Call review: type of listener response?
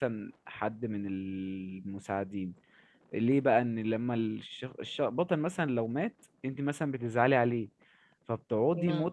listening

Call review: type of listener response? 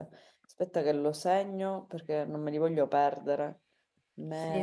taking over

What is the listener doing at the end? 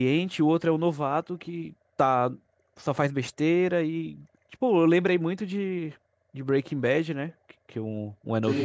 listening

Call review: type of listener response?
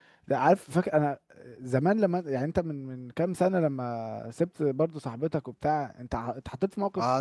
taking over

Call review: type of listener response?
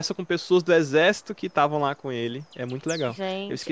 taking over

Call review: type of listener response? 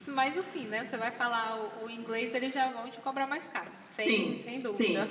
taking over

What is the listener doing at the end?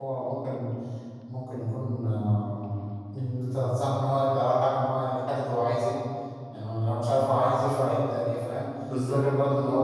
listening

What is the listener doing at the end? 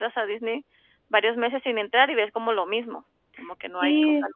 taking over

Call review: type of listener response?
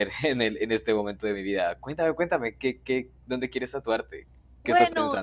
taking over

